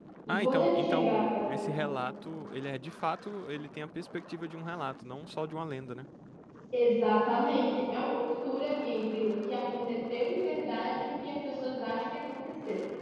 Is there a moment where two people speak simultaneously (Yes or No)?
Yes